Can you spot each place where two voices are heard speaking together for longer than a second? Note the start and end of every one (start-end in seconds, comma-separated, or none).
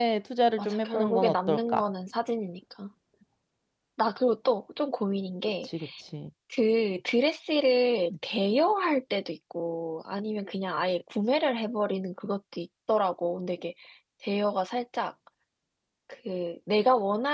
0.6-1.8